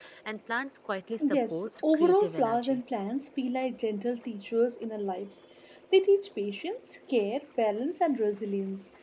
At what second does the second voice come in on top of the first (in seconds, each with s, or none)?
1.3 s